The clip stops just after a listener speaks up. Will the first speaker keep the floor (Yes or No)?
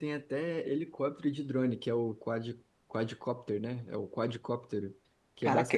Yes